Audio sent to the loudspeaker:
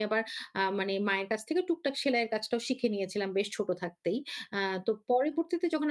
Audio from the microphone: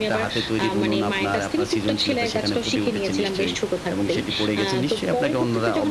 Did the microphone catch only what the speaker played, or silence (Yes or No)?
No